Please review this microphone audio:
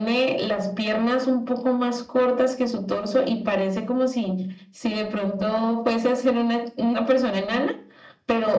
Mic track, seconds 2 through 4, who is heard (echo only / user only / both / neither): echo only